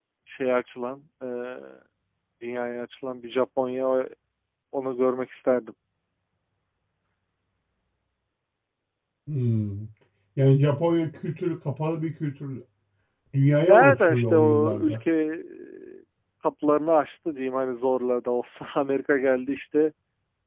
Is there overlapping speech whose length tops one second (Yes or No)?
Yes